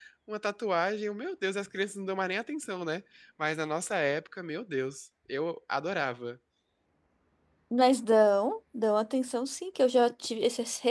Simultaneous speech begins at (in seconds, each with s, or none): none